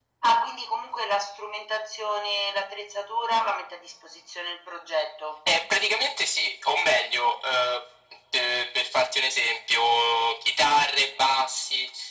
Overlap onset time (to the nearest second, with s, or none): none